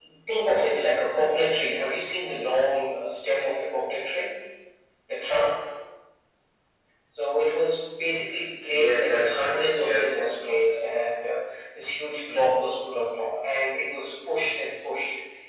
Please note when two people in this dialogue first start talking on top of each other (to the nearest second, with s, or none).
9 s